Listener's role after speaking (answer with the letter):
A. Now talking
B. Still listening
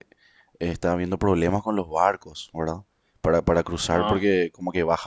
B